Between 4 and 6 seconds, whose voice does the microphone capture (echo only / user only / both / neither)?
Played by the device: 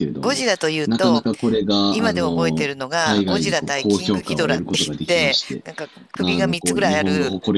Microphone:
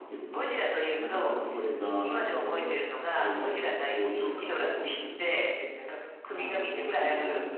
echo only